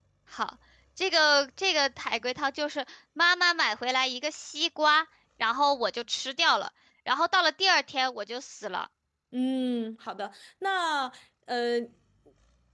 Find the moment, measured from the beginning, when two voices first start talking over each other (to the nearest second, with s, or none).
none